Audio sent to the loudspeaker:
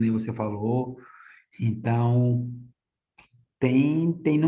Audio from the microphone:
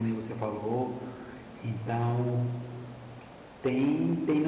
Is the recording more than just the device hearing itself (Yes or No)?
No